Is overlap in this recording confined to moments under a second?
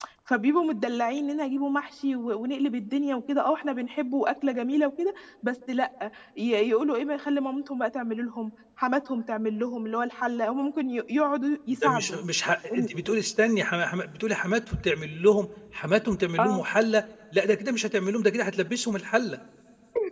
Yes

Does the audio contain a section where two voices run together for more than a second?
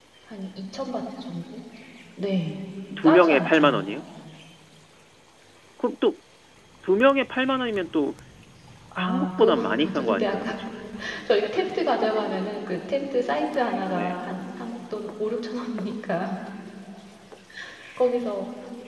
Yes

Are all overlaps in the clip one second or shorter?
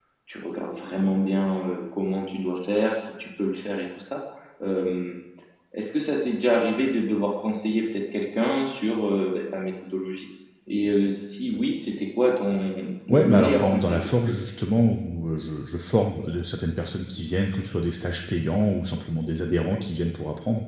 No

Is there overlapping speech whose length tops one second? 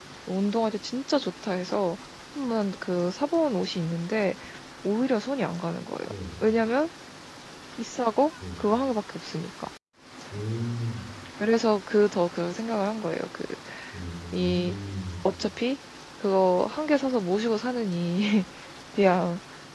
No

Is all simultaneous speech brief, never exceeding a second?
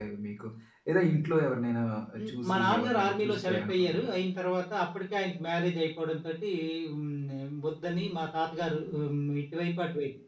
No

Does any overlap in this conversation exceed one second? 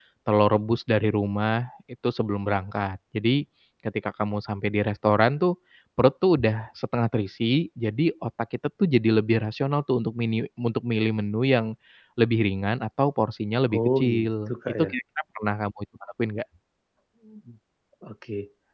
Yes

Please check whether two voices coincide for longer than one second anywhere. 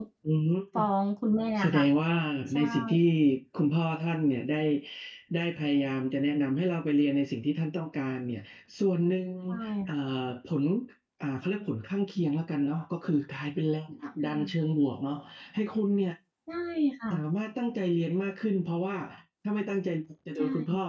No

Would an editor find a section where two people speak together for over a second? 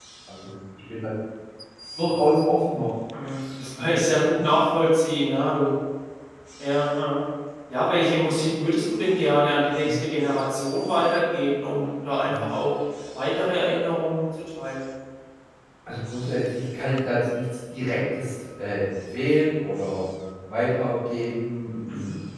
No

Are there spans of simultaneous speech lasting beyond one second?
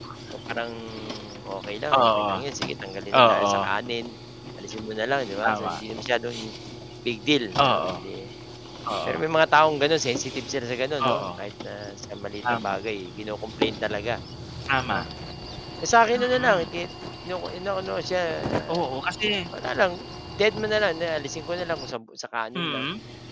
No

